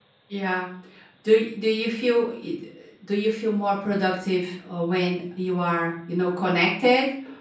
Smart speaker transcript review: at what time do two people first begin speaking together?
none

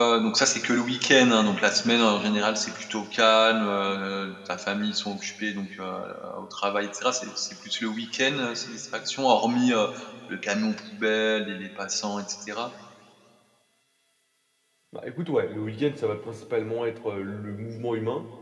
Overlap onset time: none

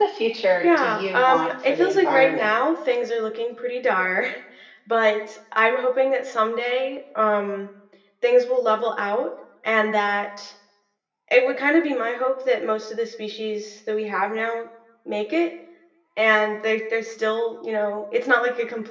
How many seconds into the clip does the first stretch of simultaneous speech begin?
0.6 s

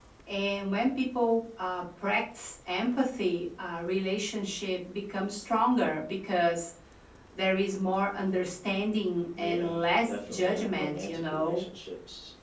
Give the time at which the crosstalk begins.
9.4 s

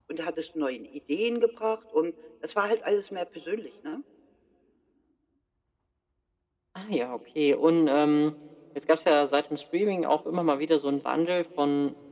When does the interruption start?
none

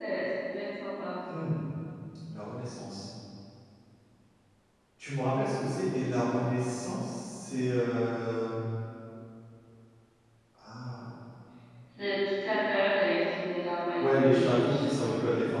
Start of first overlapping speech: 14.0 s

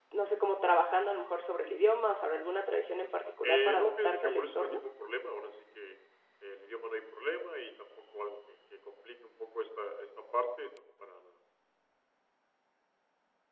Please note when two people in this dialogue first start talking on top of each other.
3.4 s

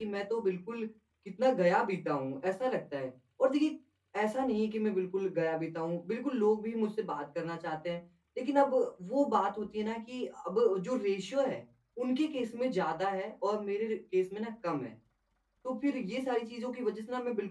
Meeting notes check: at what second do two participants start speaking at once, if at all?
none

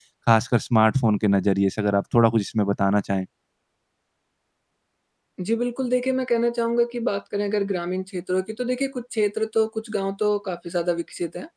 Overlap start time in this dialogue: none

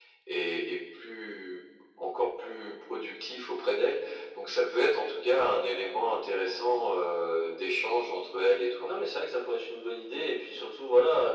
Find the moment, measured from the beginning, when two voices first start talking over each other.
none

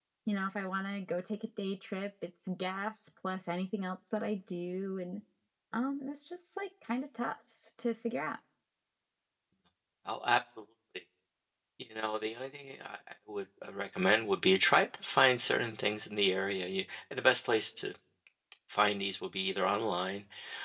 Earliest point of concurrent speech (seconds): none

